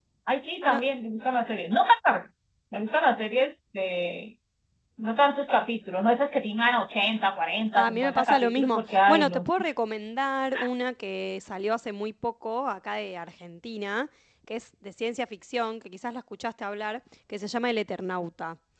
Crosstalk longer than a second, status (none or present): present